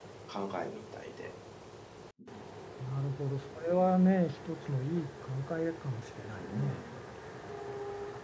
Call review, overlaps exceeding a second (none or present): none